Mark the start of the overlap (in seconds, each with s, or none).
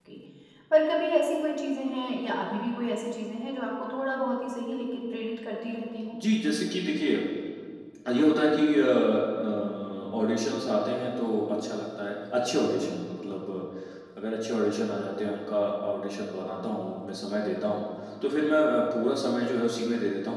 none